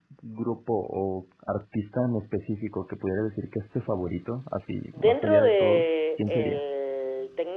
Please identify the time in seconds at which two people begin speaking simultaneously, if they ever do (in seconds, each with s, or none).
4.9 s